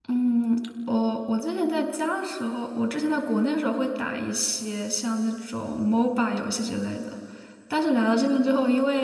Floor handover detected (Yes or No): No